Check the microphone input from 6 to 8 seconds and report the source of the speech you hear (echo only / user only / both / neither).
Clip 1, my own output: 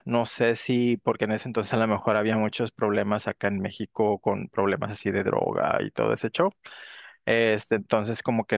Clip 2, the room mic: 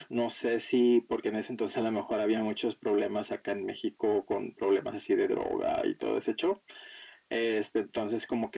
echo only